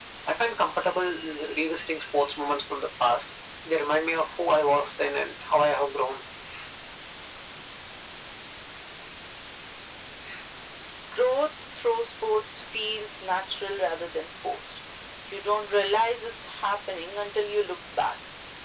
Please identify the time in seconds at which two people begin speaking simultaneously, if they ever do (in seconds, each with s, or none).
none